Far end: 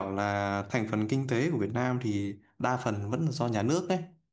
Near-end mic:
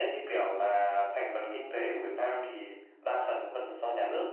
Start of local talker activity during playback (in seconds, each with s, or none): none